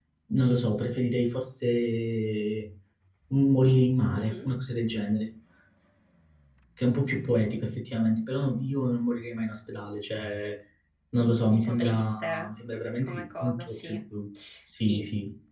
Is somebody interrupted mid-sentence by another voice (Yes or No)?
Yes